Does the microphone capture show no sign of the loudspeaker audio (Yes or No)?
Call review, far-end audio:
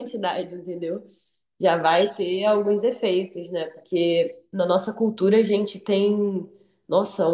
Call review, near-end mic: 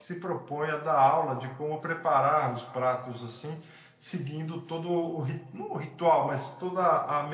Yes